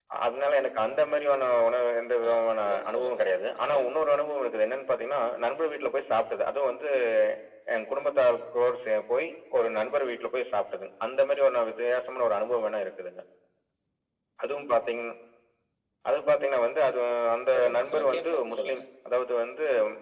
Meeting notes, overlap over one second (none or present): present